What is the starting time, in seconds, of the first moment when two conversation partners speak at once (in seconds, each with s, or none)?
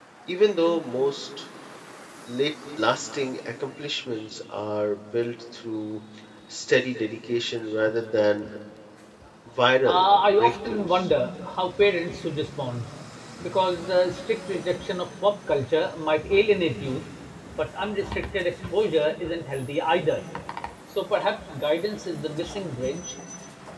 9.8 s